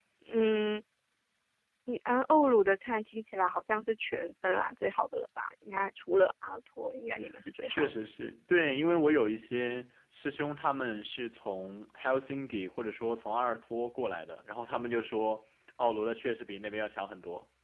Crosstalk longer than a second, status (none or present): none